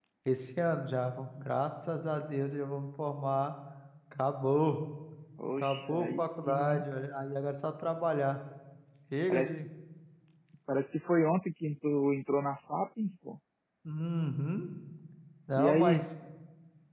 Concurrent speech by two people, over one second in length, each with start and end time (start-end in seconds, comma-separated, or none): 5.6-6.8